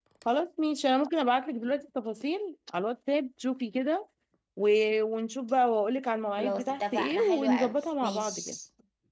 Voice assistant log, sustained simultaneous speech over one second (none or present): present